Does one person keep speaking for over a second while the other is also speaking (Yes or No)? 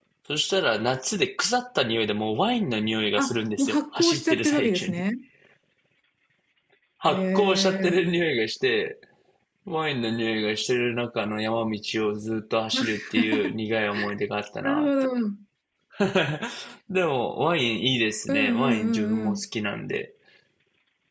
Yes